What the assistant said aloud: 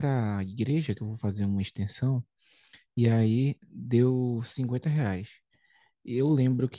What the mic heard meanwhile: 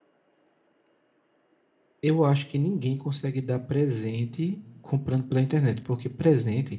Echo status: none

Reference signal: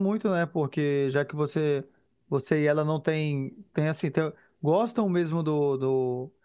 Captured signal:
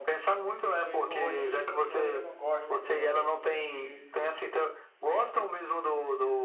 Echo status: present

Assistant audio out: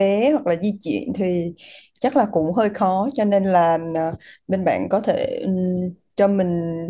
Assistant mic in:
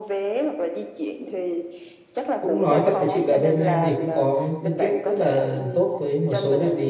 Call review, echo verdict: present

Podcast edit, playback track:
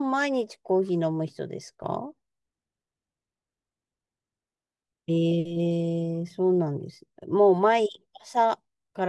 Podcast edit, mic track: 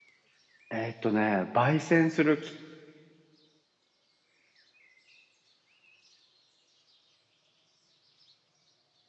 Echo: none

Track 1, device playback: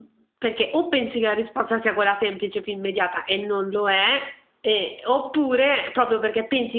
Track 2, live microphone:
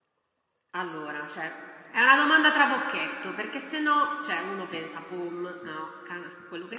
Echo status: none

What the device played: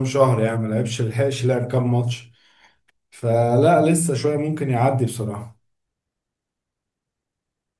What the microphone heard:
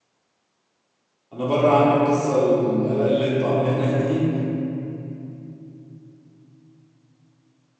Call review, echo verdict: none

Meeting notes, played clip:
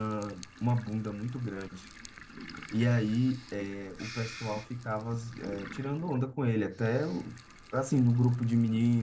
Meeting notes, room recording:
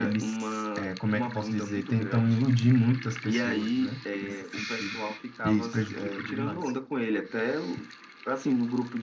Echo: present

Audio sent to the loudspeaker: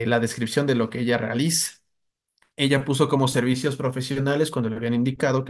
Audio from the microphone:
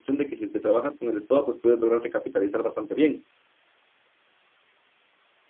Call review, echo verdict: none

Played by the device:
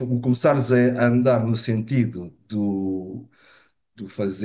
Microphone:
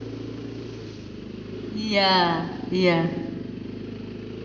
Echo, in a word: none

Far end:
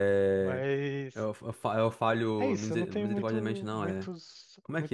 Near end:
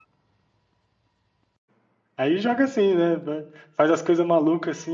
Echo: none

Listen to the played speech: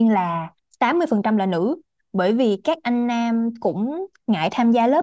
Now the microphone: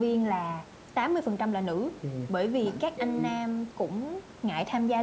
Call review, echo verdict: present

